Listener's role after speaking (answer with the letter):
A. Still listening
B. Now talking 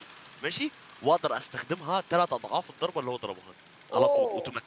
B